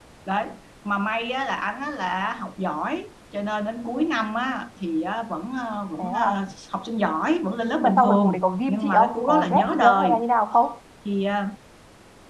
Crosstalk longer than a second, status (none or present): present